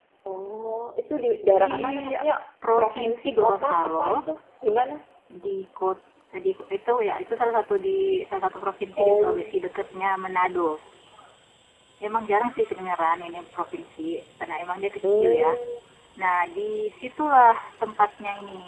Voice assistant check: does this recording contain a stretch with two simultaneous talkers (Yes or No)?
Yes